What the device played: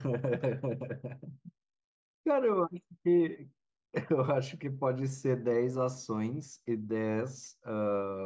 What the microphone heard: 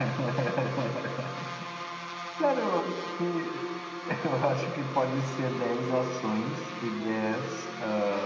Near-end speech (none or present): none